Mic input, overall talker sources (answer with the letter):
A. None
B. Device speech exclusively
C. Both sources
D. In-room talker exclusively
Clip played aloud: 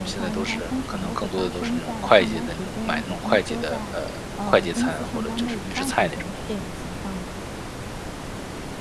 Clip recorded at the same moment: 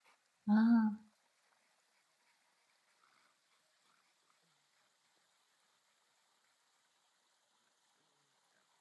D